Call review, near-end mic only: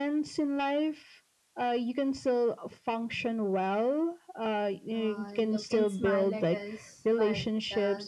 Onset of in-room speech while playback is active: 5 s

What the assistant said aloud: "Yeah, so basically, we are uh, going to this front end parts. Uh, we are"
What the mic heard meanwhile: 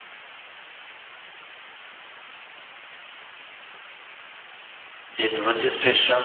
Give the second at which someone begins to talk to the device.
5 s

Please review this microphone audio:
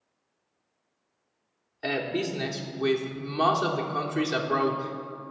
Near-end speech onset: 2 s

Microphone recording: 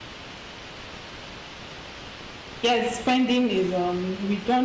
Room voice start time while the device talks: 3 s

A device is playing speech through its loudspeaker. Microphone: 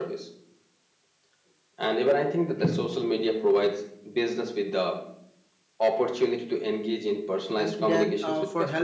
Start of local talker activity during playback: 8 s

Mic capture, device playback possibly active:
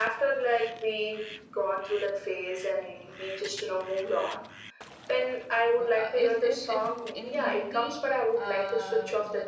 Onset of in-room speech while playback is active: 6 s

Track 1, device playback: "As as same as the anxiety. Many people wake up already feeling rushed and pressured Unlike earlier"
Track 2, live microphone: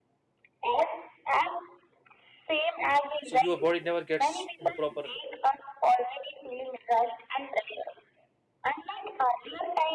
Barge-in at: 3 s

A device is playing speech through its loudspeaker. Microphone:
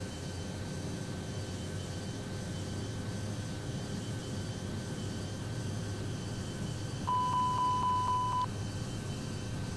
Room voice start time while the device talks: none

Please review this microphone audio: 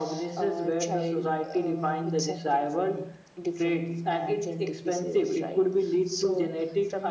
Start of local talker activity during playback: none

